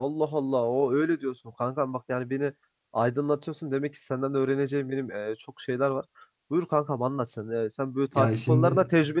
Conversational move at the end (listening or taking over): listening